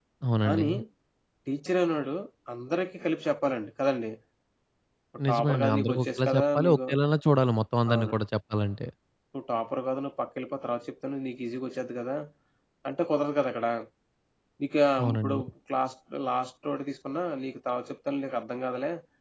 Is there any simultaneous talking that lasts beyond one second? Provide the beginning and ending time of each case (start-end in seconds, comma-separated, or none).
5.3-6.8